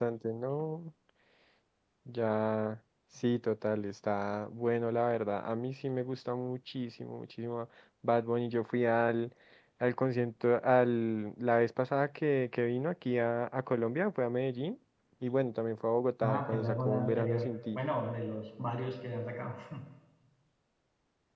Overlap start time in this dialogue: 16.2 s

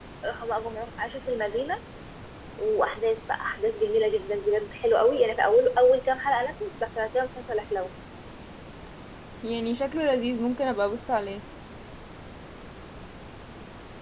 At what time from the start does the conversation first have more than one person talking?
none

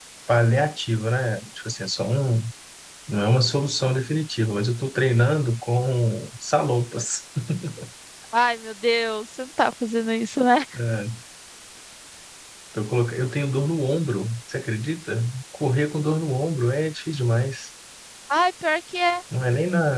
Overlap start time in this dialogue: none

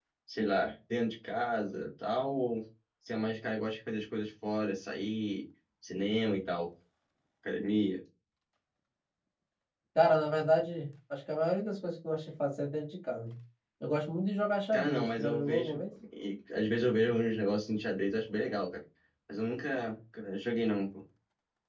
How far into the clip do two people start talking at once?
14.7 s

